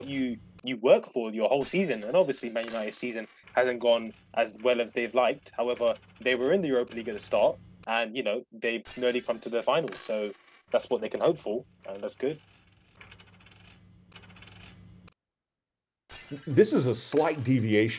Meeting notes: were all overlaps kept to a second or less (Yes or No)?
Yes